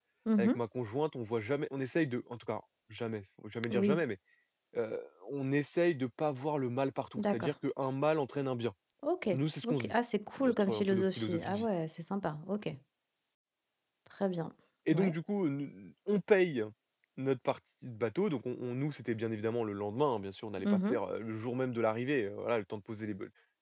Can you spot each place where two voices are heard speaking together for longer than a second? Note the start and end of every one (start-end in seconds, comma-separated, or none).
10.4-11.7